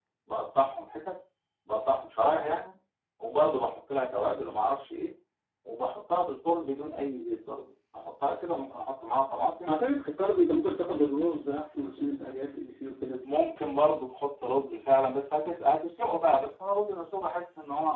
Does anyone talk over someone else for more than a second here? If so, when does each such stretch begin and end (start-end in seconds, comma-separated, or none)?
none